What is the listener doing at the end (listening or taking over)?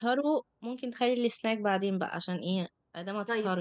taking over